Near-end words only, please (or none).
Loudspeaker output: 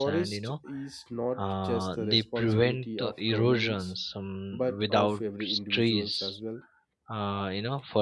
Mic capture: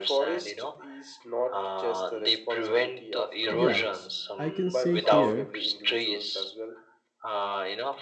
Yeah, I can say here